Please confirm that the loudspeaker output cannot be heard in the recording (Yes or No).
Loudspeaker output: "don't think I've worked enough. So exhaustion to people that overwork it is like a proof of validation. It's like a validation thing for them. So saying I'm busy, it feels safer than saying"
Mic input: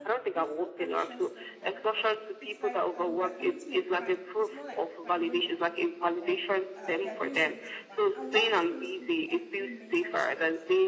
No